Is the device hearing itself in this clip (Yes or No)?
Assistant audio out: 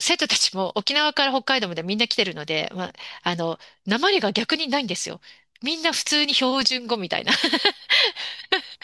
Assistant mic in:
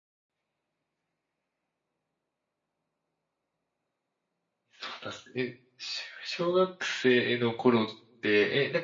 No